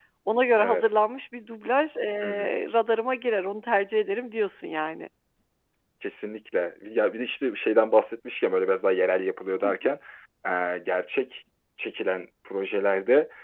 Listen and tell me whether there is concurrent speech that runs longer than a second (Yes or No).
No